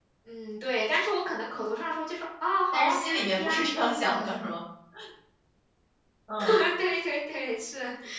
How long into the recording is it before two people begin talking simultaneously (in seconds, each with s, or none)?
2.7 s